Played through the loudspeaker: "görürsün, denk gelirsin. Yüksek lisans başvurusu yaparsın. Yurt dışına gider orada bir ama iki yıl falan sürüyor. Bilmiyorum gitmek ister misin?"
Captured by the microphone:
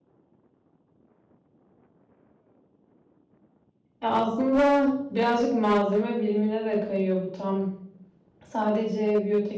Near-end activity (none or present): present